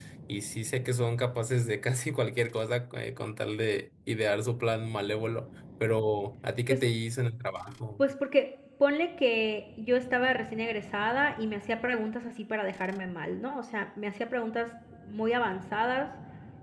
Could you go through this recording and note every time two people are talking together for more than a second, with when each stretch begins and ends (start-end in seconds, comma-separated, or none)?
none